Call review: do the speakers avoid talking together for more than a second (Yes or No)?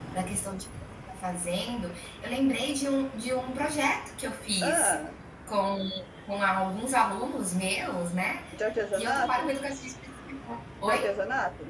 Yes